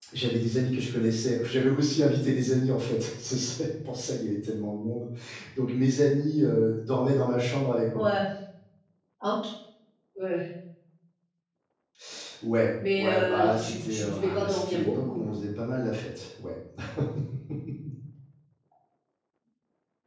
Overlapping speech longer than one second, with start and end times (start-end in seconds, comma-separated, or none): 13.0-15.2